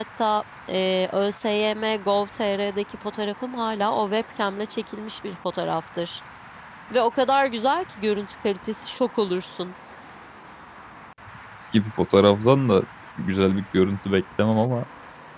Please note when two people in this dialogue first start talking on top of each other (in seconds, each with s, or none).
none